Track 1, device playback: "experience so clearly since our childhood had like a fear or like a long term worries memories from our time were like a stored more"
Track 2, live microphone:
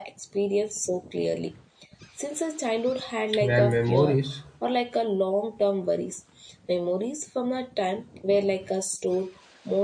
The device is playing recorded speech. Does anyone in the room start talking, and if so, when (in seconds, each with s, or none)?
3.4 s